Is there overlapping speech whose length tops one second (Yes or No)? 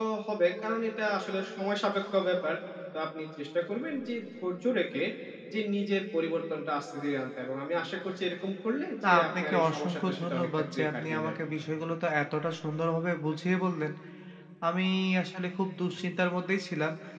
Yes